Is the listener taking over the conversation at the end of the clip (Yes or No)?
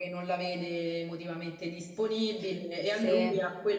No